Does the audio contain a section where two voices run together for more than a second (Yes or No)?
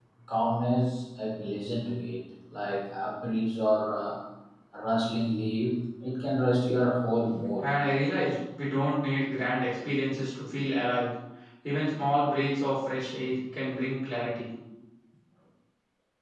No